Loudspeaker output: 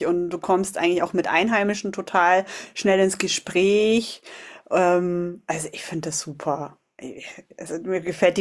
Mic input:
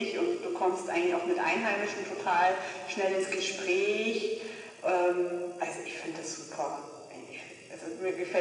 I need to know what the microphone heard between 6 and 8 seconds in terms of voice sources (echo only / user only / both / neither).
echo only